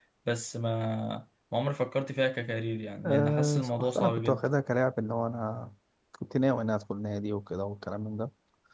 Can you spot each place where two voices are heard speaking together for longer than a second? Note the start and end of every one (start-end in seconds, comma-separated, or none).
3.0-4.4